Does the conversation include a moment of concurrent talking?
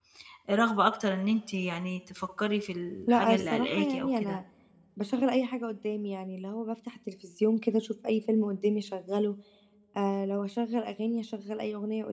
Yes, from 3.1 s

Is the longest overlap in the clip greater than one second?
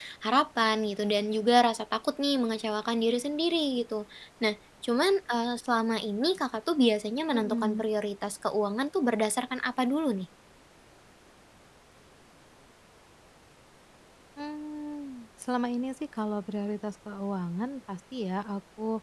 No

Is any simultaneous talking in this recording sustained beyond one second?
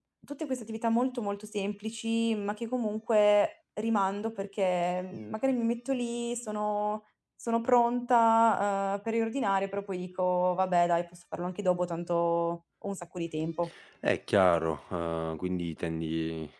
No

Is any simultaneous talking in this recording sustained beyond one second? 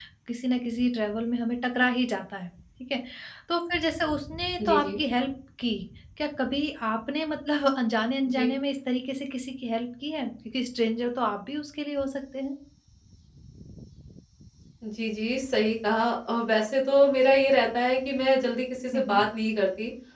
No

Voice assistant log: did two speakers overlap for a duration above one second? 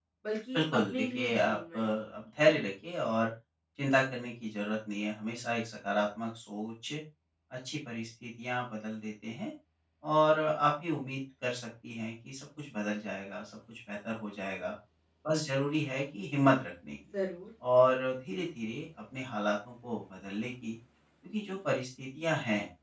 Yes, from 0.5 s

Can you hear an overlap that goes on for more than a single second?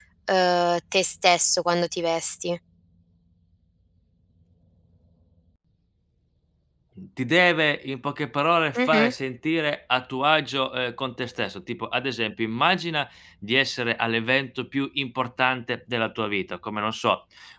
No

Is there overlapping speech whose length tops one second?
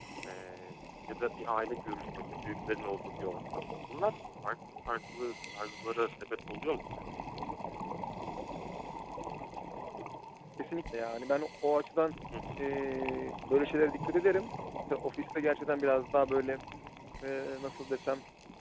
No

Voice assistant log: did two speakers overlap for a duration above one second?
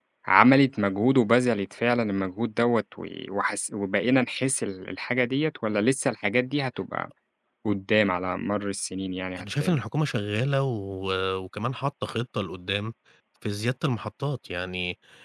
No

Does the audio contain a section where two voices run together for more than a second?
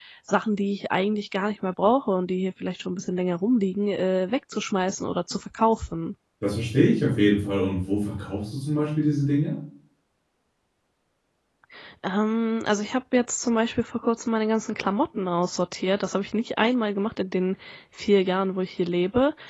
No

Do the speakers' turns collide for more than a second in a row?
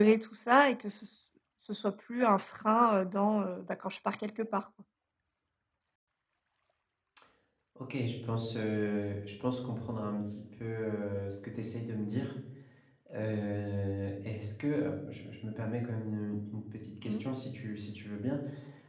No

